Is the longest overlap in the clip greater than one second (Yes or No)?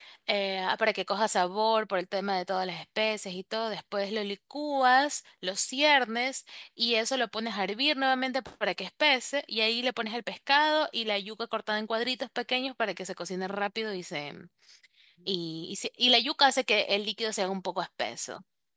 No